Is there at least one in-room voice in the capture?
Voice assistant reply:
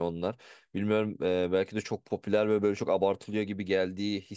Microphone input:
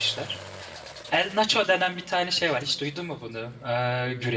Yes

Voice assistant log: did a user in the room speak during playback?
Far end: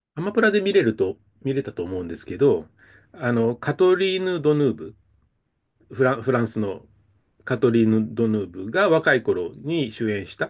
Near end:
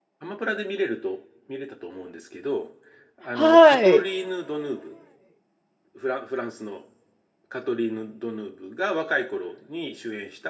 Yes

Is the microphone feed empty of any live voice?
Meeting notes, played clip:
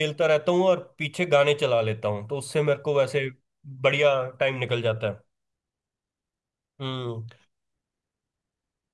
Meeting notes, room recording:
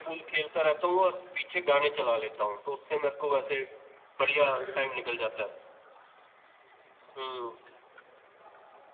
No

